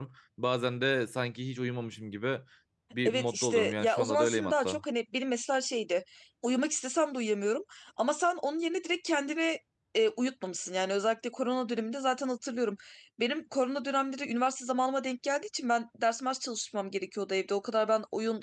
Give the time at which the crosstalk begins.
3.0 s

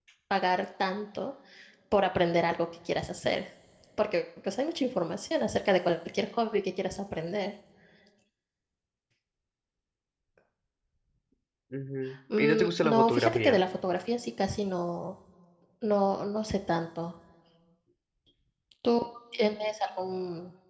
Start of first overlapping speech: 12.4 s

